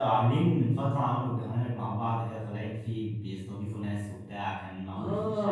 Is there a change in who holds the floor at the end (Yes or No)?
Yes